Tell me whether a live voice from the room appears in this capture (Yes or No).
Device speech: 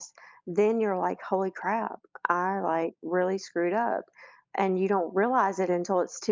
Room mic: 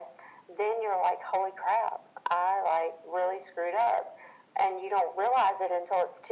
No